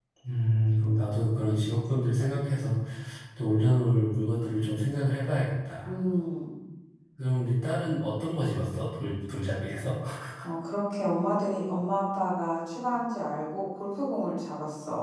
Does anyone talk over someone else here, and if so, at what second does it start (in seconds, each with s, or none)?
none